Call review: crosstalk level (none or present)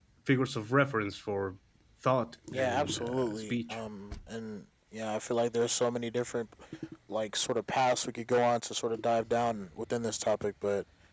present